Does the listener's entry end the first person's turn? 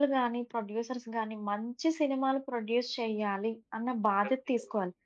No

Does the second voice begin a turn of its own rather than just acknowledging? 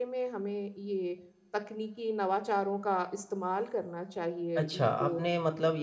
Yes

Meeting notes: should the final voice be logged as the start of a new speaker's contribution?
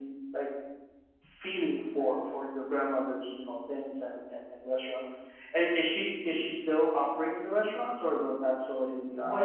Yes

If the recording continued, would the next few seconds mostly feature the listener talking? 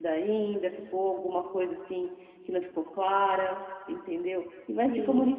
No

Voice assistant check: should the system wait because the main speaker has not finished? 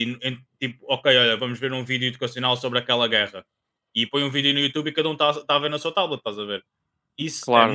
Yes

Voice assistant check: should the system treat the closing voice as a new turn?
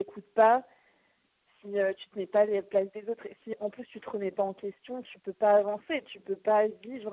No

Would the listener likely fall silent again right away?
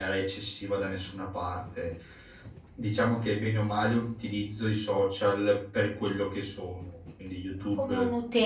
No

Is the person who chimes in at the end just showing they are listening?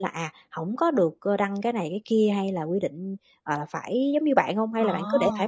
No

